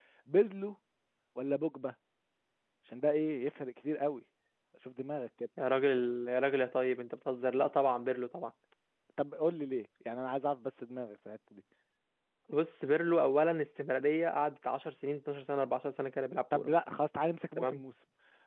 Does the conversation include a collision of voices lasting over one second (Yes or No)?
No